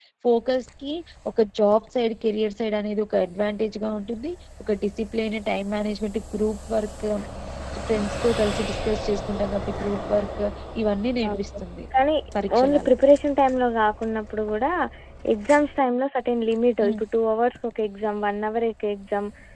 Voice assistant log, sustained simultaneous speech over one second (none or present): none